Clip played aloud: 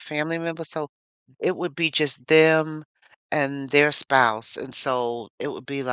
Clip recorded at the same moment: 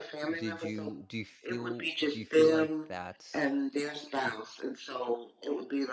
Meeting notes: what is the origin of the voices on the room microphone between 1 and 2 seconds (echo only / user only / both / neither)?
both